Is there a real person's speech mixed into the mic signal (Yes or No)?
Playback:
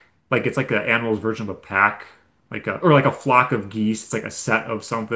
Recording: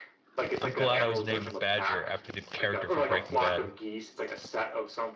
Yes